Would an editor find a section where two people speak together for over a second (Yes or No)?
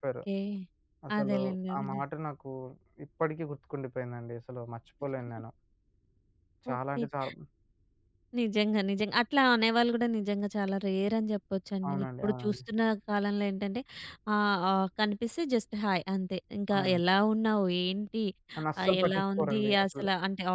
Yes